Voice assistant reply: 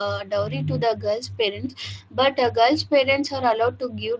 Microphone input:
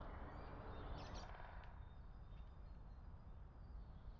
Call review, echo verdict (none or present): none